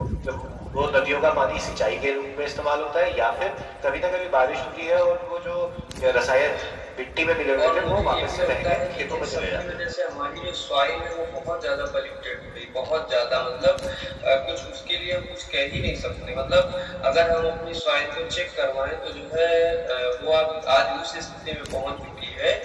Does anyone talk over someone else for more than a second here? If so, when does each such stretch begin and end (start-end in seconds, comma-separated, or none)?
7.6-9.8